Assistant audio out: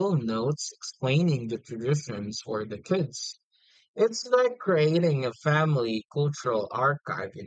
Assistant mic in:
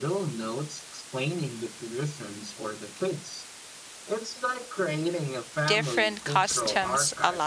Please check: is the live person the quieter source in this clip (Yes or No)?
No